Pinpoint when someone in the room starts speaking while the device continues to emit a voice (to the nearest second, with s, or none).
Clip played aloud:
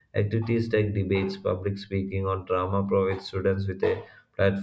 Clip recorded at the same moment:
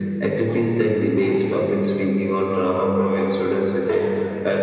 none